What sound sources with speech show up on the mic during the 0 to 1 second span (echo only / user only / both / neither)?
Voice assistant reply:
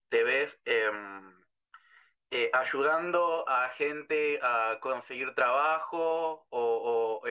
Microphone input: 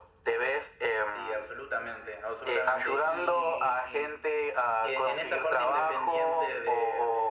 echo only